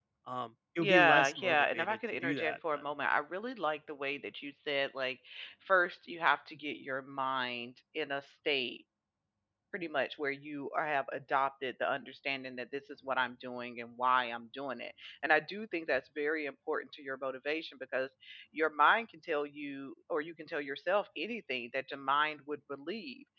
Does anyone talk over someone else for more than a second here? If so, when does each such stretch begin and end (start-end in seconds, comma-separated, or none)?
0.8-2.8